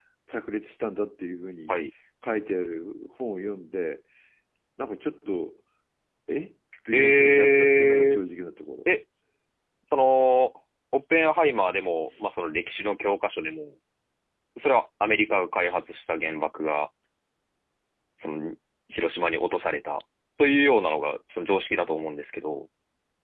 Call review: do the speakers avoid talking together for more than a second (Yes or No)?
No